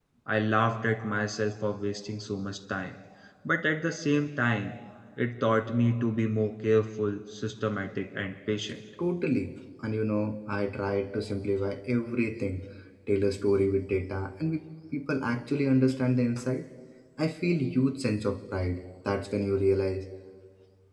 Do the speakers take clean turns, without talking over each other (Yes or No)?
Yes